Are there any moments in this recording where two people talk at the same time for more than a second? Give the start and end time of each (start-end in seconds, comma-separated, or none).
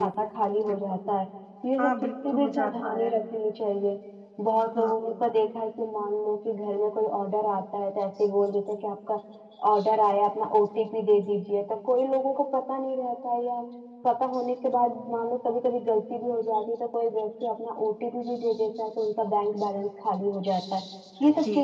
1.8-3.1